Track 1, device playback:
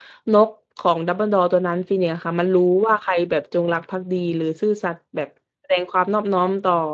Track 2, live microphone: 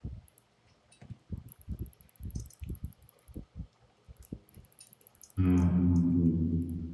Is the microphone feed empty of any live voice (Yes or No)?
No